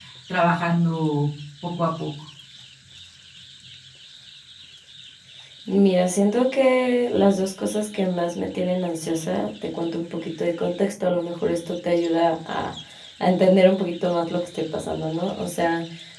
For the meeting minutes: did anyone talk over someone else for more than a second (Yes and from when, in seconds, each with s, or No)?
No